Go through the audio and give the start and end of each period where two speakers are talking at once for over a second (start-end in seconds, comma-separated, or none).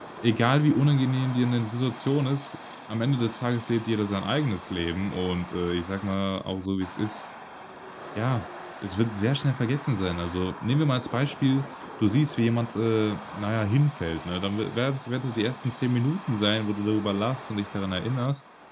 none